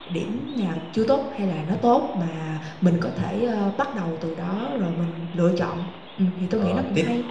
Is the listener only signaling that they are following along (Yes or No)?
No